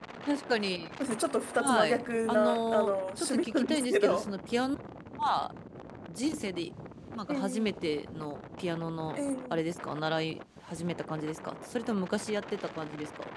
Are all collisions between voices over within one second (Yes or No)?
No